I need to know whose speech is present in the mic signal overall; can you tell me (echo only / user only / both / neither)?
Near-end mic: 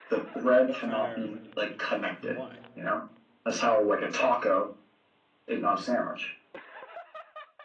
both